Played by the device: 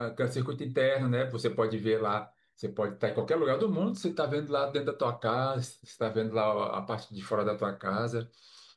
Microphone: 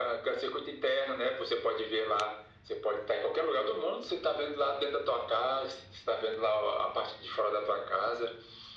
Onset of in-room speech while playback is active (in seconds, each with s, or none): none